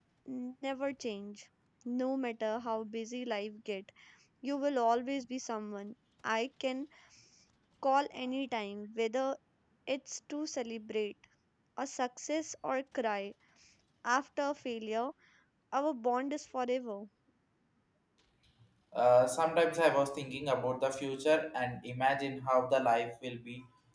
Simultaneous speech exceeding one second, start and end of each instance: none

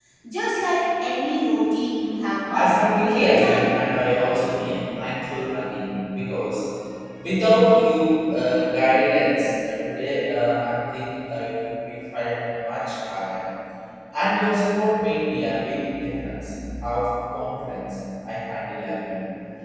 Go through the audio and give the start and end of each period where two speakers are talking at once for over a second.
2.5-3.8

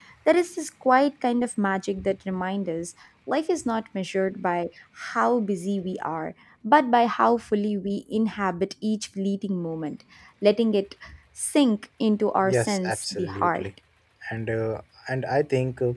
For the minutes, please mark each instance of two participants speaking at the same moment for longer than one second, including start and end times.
12.4-13.6

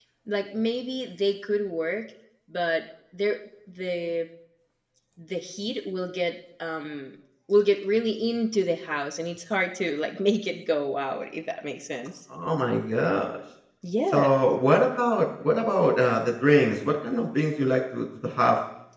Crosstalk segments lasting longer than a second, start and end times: none

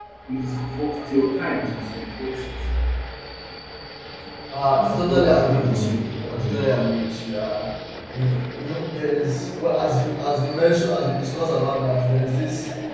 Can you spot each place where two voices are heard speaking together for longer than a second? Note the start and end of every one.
4.8-6.6

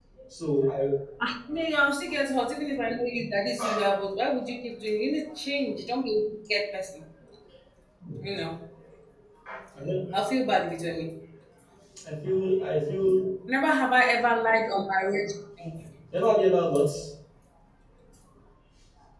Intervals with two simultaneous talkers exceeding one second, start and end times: none

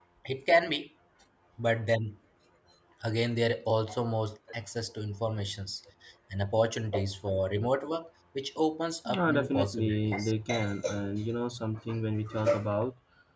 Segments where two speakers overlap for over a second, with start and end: 9.1-10.3

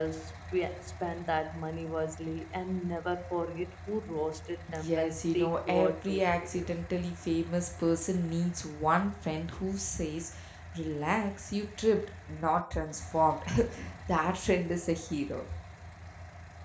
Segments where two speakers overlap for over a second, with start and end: 4.8-6.7

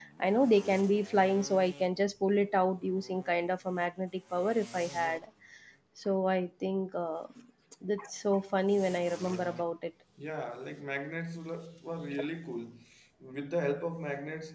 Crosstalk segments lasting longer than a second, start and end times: none

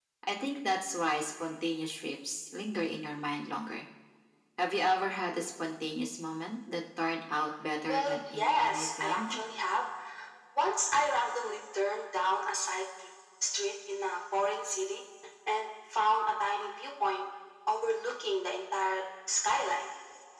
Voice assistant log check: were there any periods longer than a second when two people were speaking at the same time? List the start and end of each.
7.8-9.4

